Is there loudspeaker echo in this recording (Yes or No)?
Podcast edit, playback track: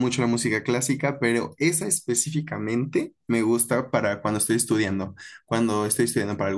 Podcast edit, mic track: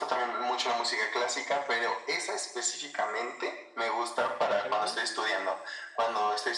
Yes